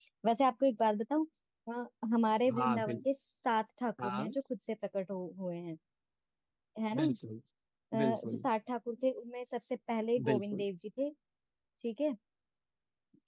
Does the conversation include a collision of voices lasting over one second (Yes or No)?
No